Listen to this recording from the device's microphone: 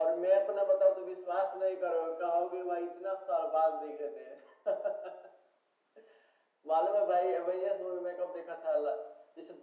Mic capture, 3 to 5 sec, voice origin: echo only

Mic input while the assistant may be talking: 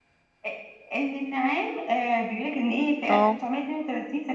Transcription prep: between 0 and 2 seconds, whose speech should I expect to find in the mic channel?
echo only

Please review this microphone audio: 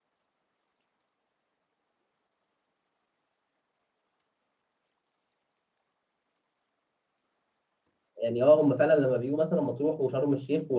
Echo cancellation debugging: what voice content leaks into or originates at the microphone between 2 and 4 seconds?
neither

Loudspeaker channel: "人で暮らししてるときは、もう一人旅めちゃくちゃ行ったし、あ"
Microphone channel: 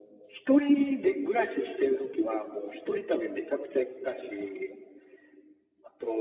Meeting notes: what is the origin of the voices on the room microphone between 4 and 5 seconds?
echo only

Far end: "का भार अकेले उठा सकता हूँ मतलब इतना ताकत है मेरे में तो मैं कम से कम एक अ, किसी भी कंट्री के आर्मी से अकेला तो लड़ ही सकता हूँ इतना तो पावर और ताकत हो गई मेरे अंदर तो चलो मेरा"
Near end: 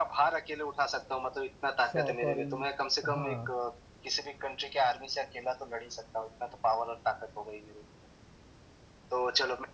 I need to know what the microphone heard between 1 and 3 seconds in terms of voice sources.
both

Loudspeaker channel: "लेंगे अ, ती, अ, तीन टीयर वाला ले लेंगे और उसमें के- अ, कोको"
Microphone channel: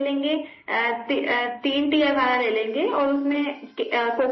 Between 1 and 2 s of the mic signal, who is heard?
echo only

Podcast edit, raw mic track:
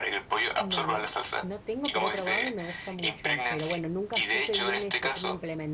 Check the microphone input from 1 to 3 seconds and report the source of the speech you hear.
both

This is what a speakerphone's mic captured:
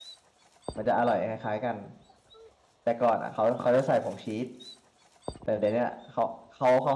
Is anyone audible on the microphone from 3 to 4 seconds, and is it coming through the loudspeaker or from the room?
user only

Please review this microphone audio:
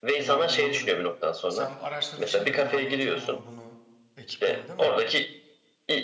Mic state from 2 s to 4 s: both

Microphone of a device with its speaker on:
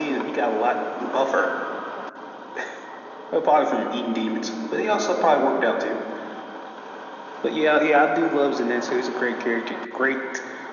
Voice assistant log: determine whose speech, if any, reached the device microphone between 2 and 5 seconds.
echo only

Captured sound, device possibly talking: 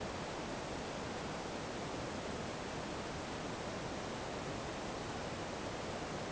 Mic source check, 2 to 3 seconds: neither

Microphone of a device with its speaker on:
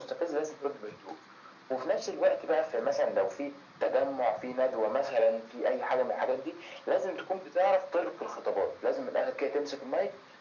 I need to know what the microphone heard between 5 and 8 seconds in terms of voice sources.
echo only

